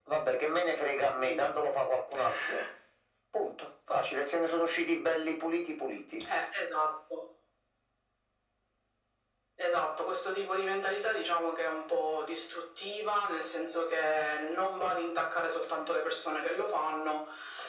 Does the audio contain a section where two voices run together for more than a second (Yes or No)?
No